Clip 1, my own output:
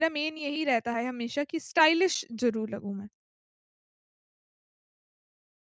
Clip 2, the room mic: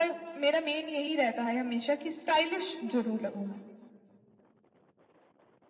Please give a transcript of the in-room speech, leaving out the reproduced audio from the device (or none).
none